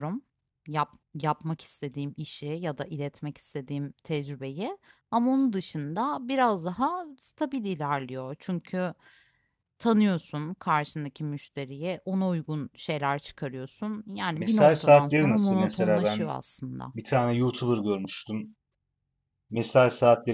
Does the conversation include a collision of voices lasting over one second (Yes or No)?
Yes